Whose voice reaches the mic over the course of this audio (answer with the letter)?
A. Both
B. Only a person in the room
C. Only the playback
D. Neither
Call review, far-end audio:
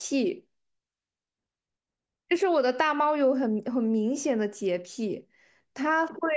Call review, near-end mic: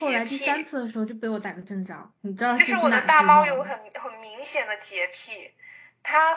A